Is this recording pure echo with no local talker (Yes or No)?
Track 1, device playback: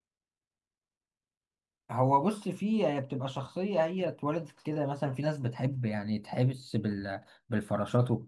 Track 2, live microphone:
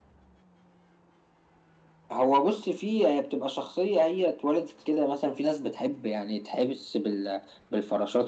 Yes